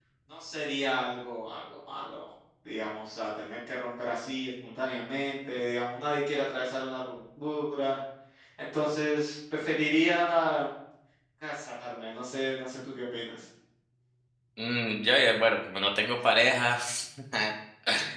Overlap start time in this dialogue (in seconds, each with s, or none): none